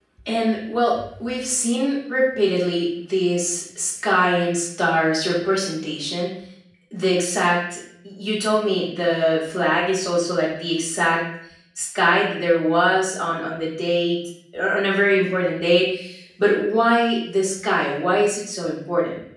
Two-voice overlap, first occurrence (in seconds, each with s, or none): none